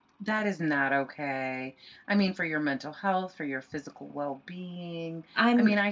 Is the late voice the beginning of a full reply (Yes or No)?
No